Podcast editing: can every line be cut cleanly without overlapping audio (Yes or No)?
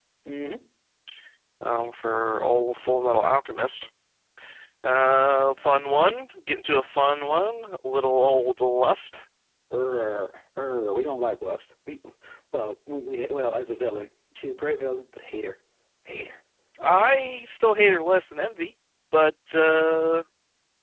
Yes